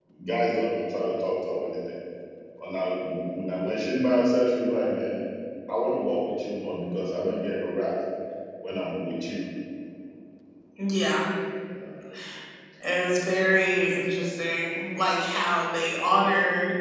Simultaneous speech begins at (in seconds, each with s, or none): none